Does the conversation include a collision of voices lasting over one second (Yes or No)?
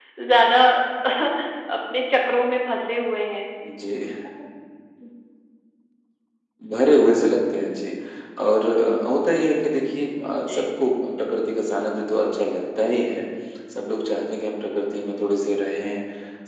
No